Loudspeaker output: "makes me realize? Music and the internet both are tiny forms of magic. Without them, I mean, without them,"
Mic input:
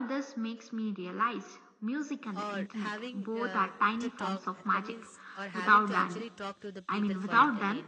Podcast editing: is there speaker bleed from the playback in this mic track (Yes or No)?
Yes